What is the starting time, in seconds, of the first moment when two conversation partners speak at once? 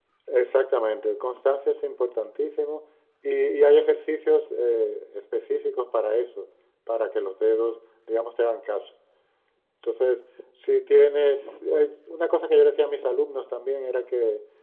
none

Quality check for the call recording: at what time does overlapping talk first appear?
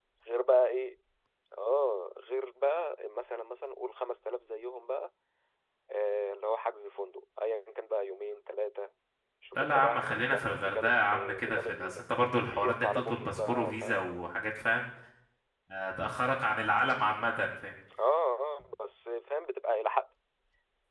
9.6 s

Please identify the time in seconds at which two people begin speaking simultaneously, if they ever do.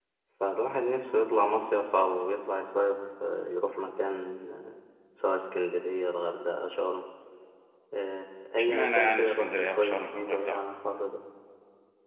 8.6 s

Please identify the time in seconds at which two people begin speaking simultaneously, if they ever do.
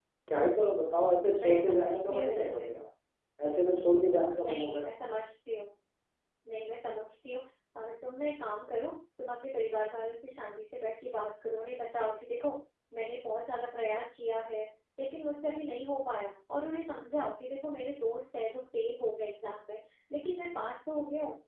1.4 s

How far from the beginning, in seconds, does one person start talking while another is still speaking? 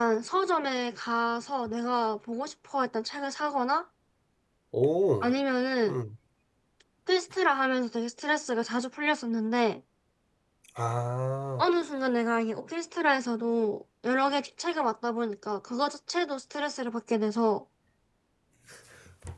none

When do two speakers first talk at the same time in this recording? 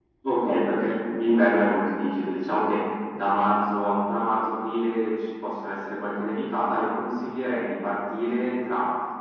none

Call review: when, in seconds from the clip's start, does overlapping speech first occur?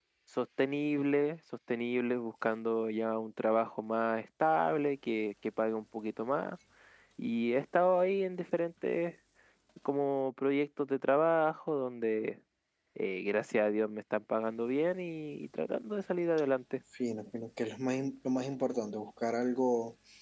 none

